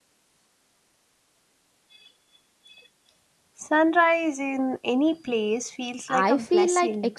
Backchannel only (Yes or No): No